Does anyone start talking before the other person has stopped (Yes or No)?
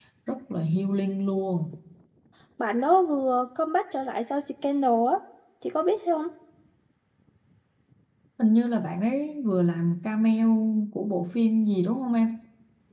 No